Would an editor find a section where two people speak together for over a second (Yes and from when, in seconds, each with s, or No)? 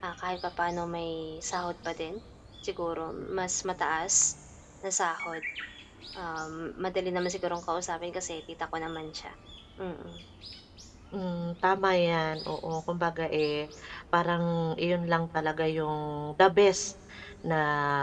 No